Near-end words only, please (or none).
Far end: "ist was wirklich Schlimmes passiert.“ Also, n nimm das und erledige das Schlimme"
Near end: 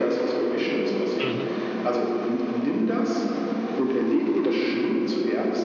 Mhm.